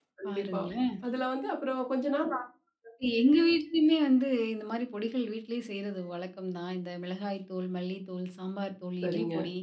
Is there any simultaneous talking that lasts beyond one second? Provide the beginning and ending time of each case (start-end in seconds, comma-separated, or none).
none